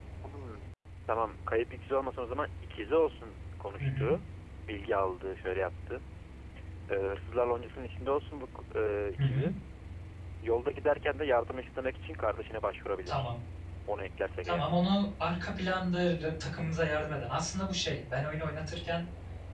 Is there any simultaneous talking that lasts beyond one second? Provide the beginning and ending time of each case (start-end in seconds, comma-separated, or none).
none